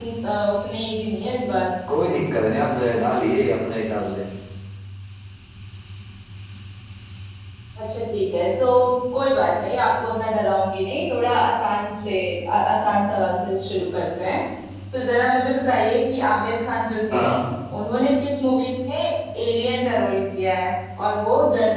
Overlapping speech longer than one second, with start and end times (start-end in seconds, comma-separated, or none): none